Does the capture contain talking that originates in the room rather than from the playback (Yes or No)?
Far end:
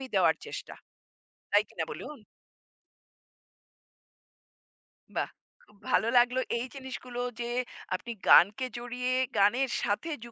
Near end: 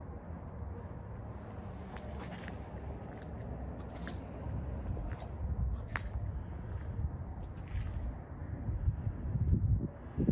No